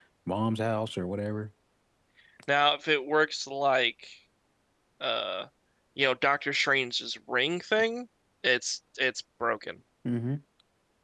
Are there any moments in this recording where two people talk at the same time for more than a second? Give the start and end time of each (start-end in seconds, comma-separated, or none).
none